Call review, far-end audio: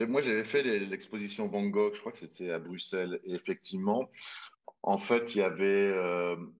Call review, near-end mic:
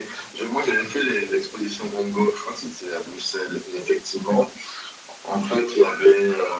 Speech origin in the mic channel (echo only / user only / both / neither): echo only